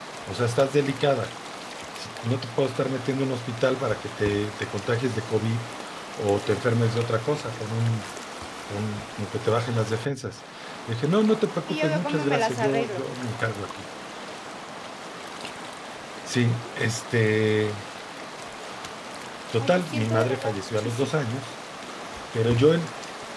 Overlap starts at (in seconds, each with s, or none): 11.7 s